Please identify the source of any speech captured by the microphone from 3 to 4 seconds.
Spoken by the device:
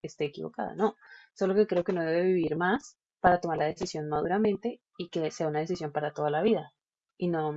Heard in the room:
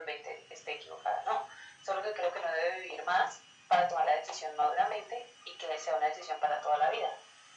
echo only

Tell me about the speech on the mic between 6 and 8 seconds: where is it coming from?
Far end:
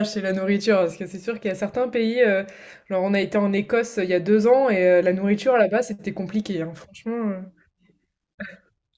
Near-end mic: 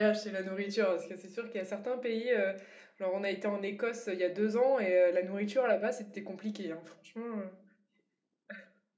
echo only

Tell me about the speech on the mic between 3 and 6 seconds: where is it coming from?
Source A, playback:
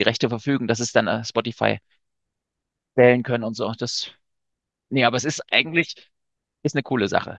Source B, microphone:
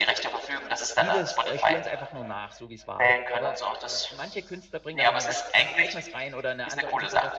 both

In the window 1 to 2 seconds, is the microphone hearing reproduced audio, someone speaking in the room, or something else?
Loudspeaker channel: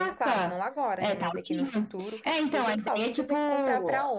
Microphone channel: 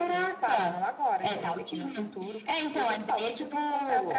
both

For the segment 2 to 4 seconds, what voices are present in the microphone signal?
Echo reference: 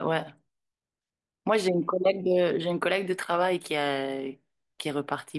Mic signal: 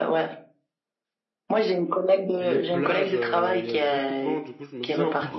both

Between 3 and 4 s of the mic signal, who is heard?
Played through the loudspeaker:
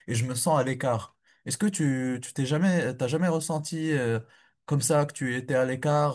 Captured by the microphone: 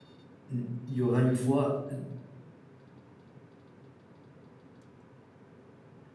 neither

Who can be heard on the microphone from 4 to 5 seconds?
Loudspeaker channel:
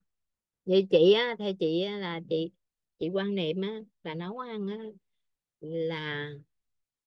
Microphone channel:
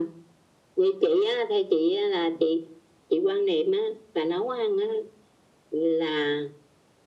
echo only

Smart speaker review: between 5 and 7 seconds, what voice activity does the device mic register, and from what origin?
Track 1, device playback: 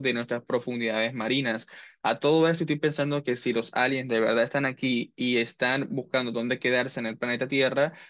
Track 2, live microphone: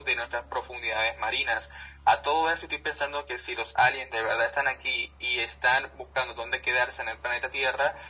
echo only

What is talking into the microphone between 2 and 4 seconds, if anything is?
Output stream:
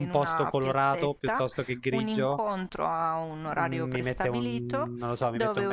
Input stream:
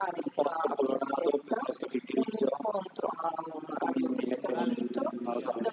echo only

